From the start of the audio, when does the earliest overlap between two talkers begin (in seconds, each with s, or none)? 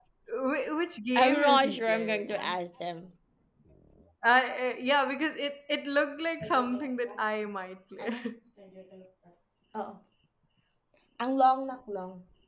1.2 s